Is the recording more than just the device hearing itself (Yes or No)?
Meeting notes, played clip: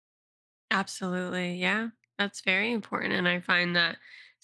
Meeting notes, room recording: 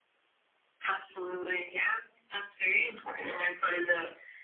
No